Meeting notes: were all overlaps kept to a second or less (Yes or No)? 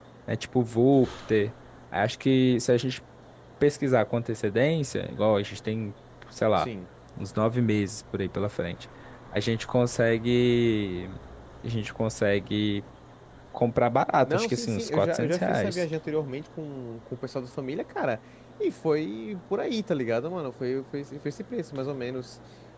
No